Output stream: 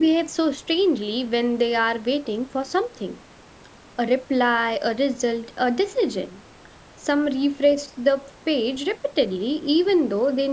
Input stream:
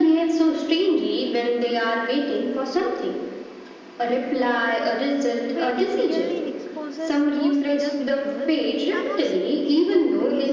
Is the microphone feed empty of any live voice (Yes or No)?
No